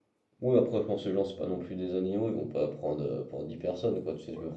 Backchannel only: Yes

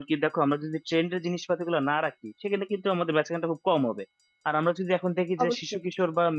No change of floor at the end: Yes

